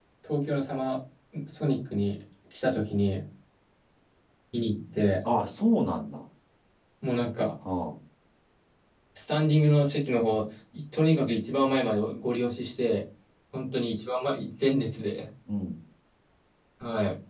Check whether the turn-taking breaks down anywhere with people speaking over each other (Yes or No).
No